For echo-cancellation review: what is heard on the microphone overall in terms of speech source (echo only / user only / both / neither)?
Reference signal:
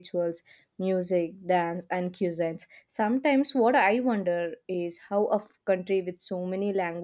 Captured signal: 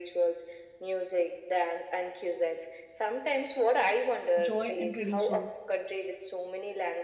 both